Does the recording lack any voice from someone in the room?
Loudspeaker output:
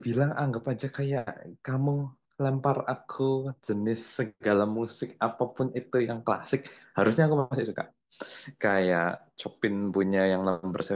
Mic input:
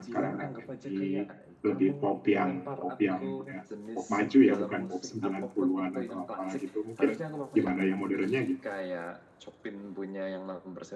No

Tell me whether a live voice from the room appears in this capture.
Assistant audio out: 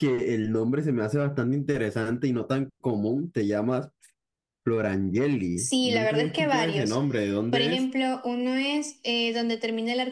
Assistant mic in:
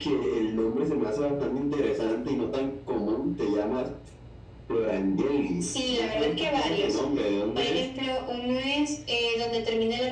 No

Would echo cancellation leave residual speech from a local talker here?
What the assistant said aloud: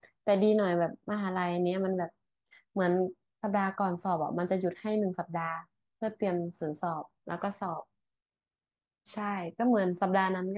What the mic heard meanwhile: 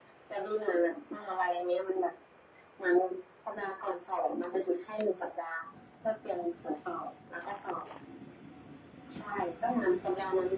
No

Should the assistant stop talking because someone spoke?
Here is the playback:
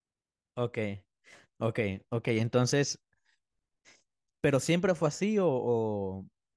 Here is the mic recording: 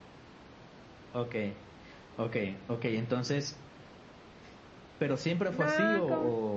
Yes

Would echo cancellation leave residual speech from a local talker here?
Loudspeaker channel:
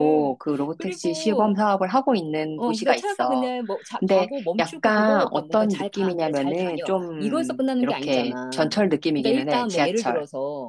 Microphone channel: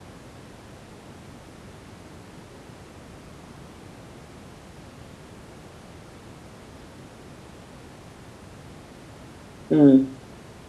Yes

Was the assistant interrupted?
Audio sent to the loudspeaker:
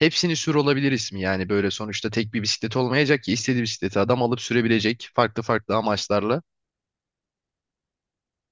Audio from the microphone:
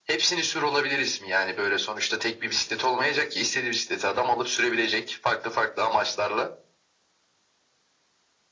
No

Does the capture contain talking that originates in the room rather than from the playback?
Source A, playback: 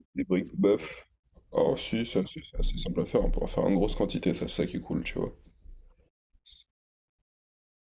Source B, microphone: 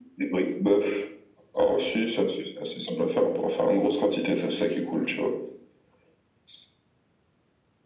No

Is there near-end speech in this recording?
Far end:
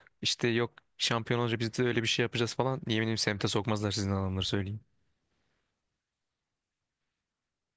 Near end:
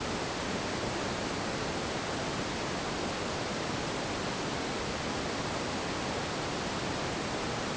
No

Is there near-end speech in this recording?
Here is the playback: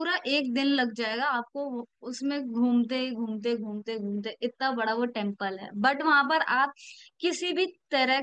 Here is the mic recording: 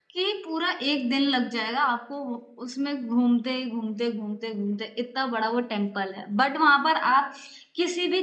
No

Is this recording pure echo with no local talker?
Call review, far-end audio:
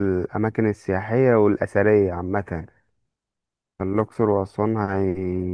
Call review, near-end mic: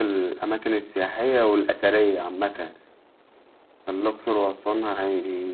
Yes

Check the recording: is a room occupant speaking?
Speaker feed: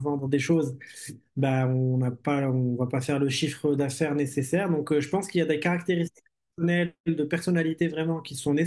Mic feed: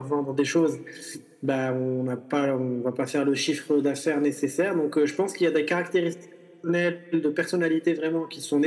No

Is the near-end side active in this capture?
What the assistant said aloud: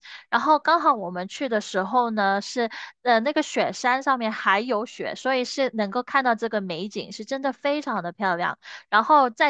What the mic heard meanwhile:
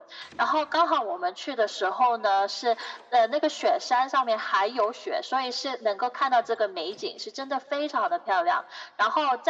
No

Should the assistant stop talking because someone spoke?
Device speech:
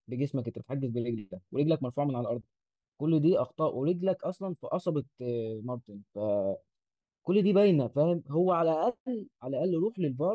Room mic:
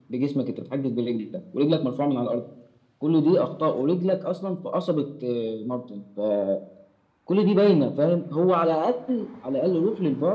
No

